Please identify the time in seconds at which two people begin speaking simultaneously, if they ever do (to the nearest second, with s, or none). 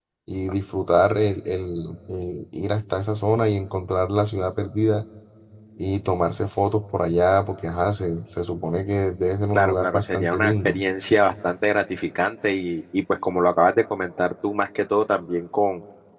10 s